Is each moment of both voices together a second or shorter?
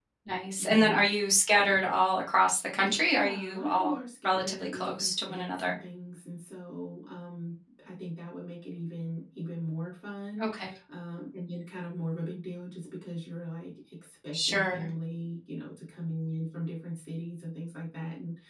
No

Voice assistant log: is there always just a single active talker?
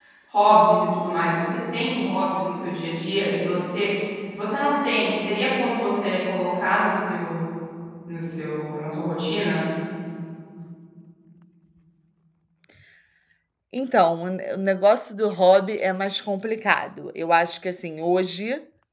Yes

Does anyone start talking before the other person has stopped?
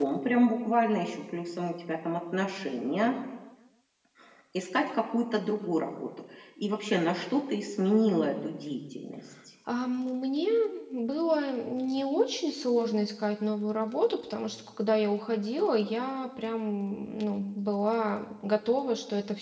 No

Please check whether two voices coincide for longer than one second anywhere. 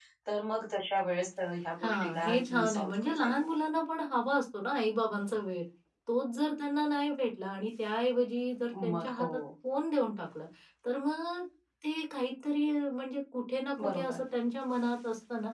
Yes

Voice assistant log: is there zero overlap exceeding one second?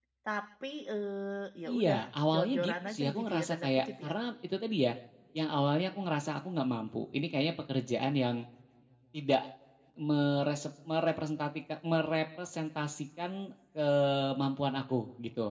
No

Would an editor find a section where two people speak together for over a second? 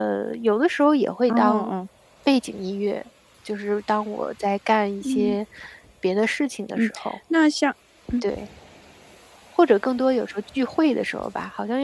No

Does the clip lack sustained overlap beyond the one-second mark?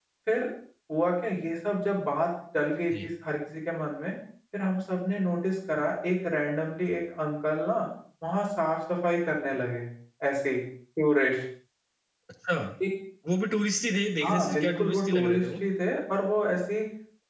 No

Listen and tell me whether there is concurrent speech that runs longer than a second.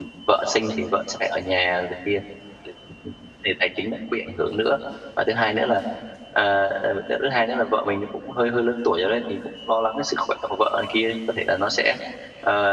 No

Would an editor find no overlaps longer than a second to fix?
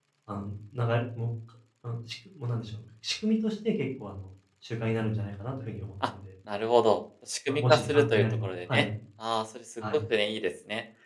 No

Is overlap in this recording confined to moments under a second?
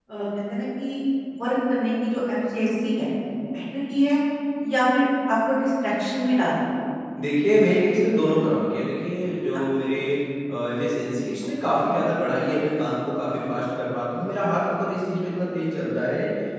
Yes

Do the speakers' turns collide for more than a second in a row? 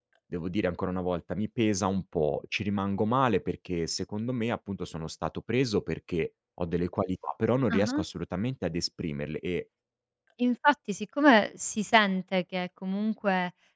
No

